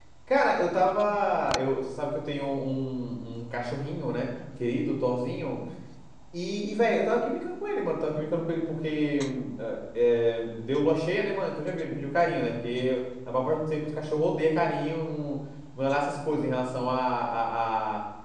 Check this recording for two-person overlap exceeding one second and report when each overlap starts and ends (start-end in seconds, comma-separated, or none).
none